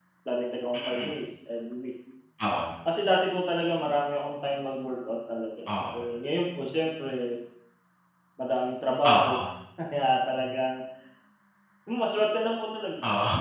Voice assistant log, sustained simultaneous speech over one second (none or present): none